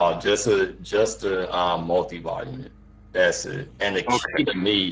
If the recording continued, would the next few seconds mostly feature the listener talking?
No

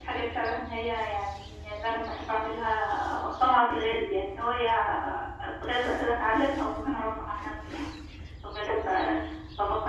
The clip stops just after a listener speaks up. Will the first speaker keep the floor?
Yes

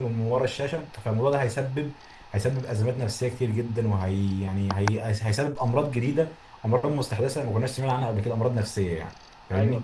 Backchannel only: No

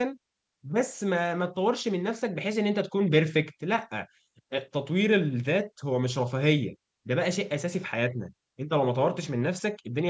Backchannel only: Yes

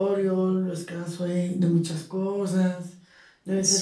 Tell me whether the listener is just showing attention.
Yes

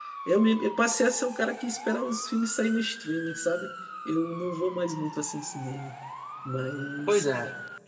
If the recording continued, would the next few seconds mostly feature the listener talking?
Yes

